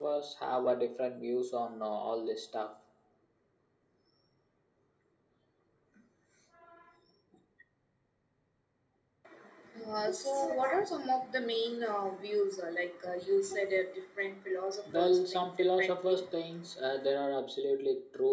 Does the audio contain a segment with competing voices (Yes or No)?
Yes